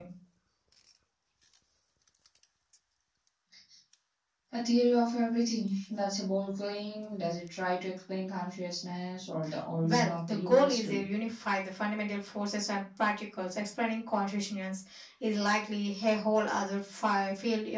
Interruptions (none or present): present